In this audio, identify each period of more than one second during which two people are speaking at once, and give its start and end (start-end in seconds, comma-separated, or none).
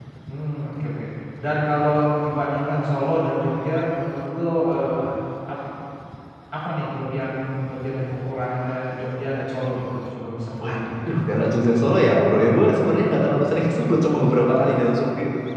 none